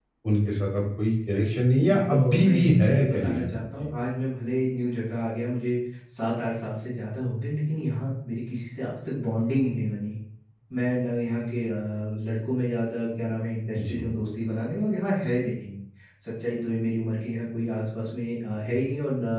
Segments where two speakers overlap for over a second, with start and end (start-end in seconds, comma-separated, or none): 1.8-3.6